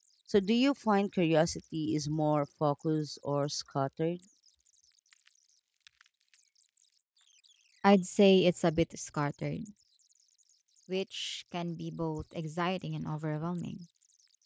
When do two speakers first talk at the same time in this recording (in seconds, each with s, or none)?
none